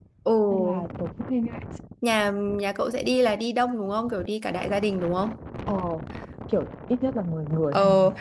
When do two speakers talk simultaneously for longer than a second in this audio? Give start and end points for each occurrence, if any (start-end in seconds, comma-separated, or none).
none